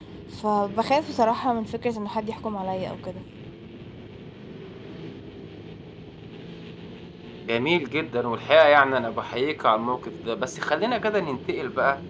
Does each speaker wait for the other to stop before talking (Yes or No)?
Yes